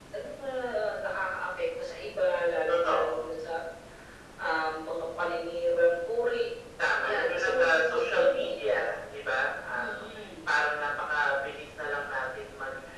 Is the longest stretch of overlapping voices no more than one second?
No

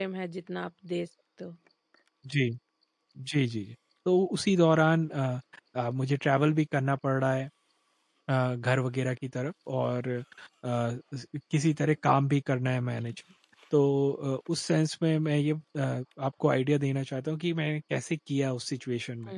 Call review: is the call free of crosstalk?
Yes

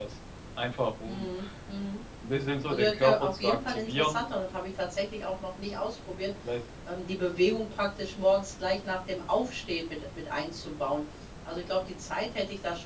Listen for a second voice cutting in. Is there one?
Yes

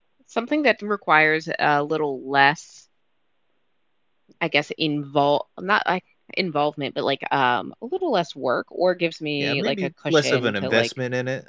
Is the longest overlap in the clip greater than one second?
Yes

